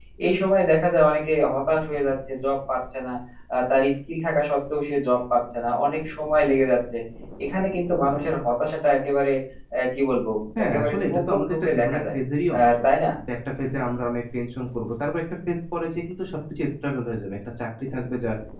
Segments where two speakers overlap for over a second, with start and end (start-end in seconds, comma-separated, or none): 10.6-12.2